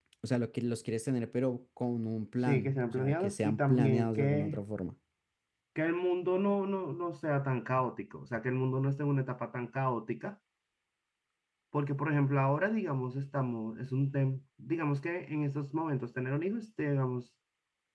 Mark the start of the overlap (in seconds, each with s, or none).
2.5 s